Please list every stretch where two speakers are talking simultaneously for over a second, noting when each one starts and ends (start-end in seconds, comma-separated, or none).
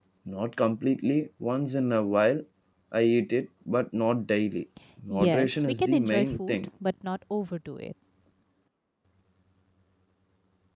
5.1-6.6